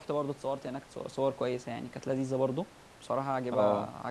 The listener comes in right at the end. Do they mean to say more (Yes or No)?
No